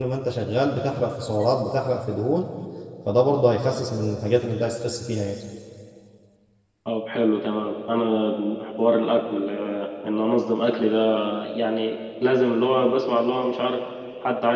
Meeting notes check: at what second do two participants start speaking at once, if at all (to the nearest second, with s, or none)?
none